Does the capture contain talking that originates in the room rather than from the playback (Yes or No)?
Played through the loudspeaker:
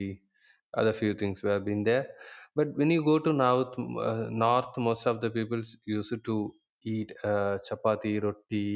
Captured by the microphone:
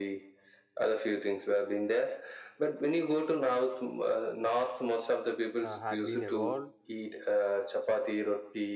Yes